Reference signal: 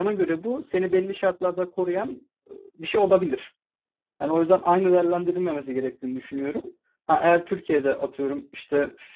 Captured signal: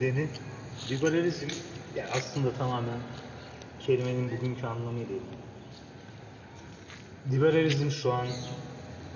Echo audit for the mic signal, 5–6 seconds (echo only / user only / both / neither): user only